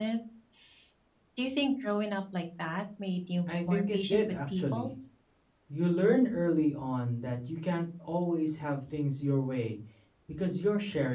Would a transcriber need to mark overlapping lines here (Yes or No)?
Yes